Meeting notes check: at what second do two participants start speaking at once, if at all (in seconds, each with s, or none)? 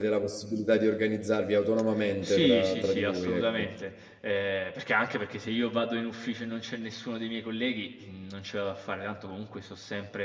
2.0 s